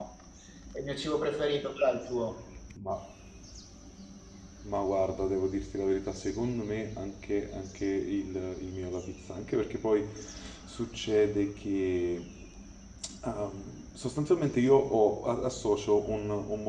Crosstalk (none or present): none